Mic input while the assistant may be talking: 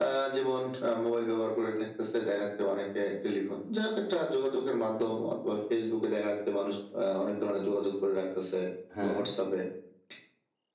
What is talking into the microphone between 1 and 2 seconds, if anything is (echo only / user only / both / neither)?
echo only